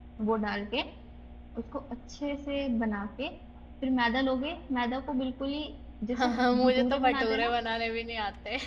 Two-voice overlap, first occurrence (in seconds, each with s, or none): 6.1 s